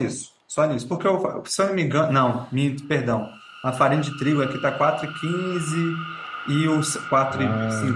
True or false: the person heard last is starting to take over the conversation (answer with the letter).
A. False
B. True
A